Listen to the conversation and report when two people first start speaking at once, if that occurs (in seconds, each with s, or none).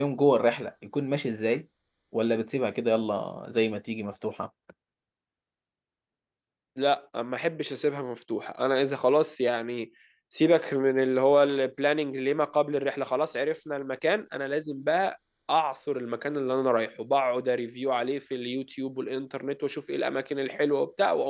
none